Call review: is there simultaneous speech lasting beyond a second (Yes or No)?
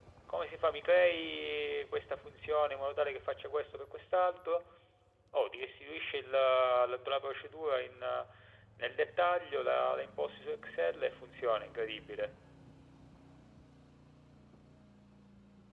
No